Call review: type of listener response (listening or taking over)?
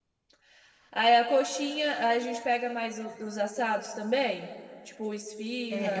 taking over